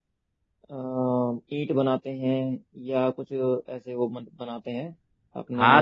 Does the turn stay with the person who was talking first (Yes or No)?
No